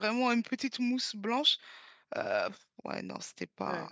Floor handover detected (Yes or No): Yes